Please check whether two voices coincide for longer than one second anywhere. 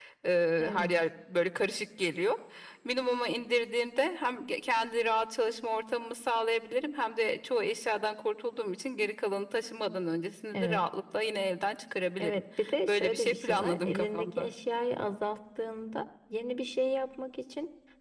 Yes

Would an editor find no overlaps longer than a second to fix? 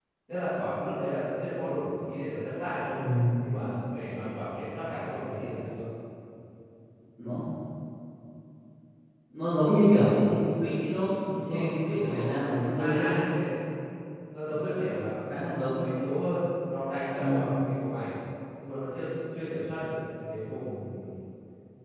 No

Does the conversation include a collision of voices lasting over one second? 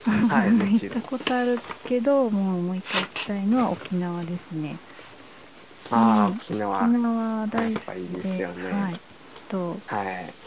Yes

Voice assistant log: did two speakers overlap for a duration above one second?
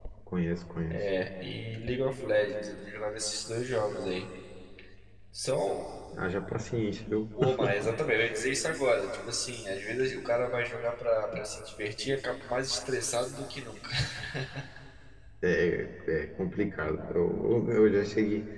No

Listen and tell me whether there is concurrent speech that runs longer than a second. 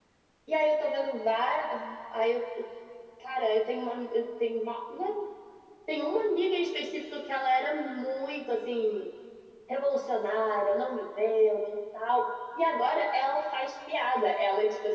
No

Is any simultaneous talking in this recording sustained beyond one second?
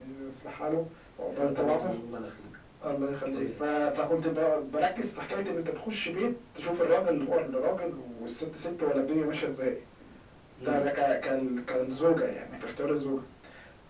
No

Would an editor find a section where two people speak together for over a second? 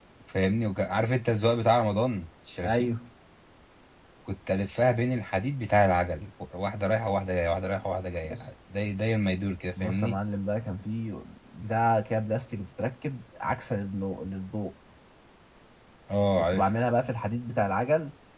No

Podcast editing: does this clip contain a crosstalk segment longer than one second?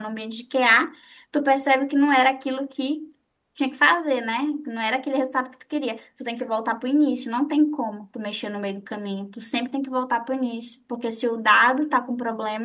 No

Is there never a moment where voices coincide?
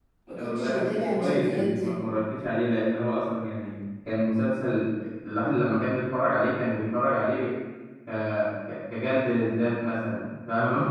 No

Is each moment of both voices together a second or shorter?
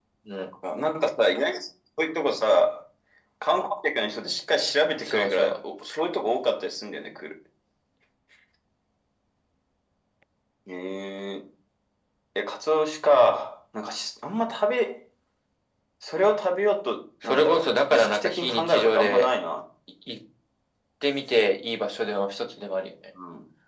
No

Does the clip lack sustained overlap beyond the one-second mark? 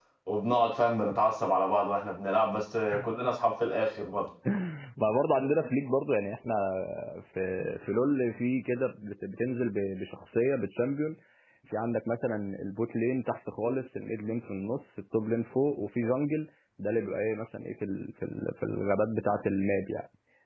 Yes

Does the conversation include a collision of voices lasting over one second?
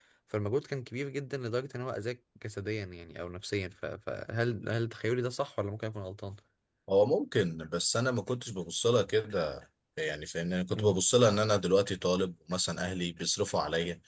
No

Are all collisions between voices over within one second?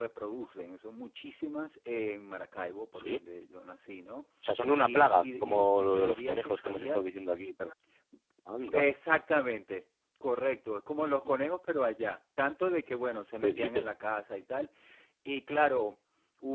No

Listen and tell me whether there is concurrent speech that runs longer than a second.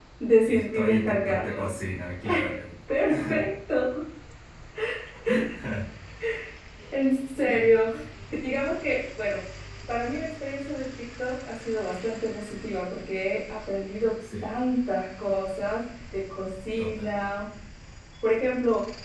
Yes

